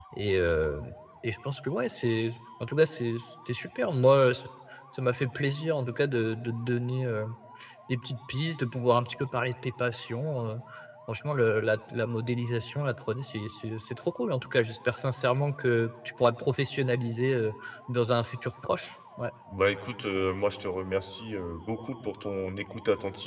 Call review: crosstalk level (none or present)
none